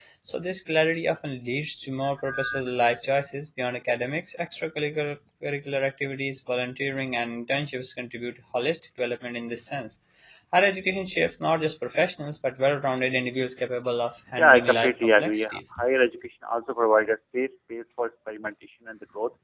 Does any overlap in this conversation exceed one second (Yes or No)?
Yes